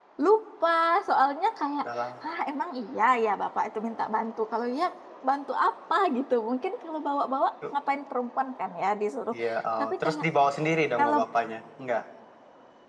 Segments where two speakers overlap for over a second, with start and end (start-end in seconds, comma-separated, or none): none